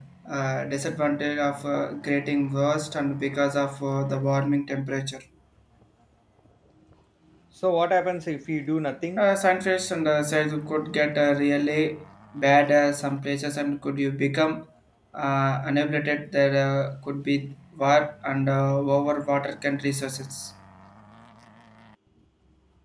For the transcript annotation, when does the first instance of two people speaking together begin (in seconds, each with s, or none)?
none